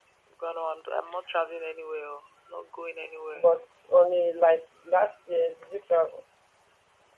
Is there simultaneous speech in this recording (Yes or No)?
No